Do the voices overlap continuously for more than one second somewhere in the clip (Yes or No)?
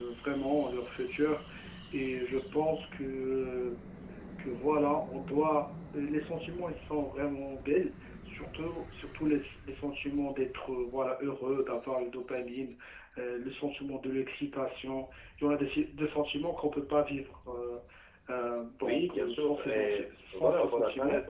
Yes